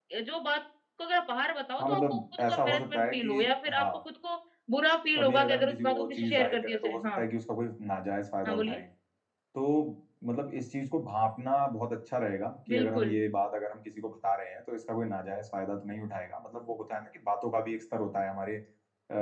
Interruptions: present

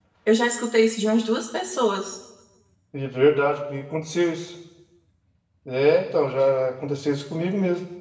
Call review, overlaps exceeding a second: none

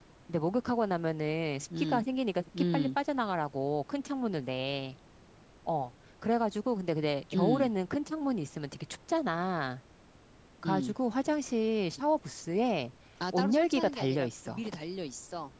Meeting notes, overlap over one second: present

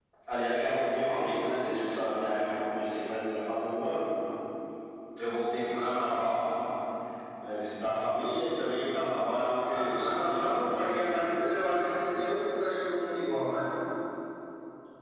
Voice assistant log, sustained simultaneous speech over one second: present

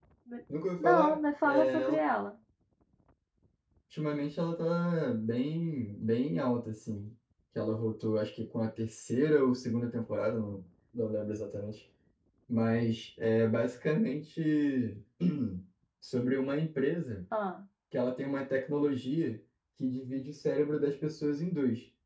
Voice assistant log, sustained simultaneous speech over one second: present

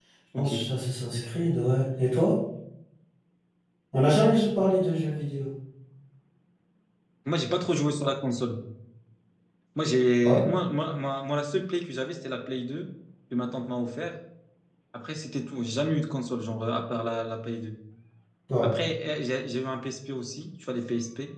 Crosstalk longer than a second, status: none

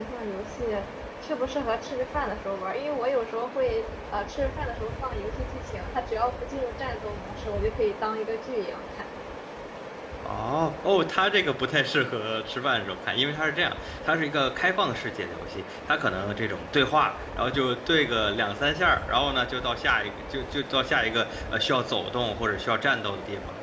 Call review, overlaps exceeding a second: none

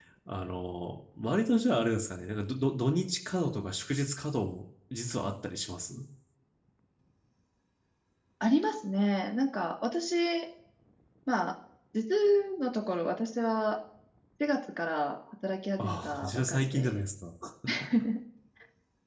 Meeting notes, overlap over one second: present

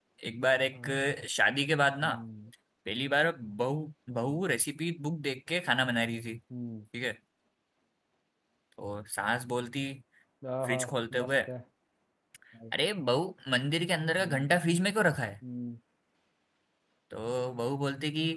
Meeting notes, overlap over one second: none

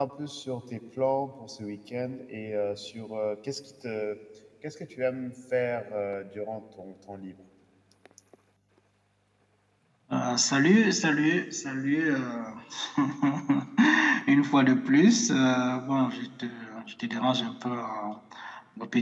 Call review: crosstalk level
none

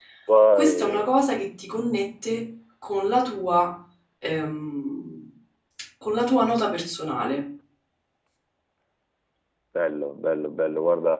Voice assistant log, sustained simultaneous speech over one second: none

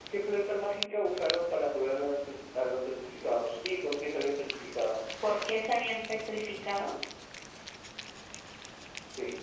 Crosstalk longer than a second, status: none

